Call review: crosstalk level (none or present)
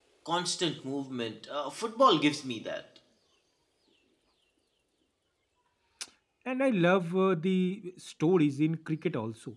none